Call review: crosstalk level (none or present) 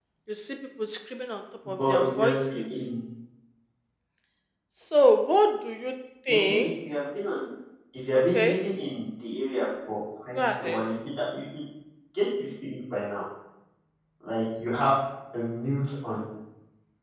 present